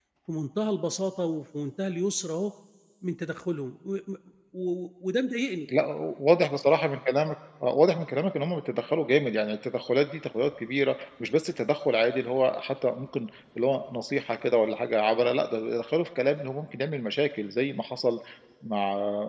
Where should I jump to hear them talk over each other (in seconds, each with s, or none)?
none